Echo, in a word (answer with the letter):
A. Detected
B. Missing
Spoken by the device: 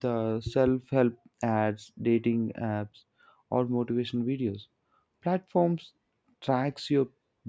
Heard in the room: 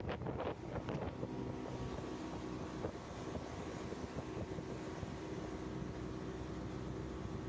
B